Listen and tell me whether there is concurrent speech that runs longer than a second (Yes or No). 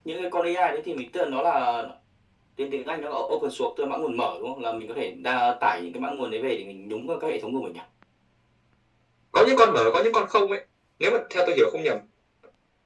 No